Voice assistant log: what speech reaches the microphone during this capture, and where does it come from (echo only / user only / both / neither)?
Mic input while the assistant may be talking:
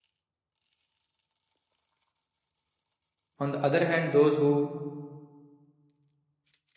user only